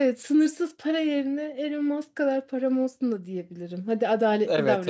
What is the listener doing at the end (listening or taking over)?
taking over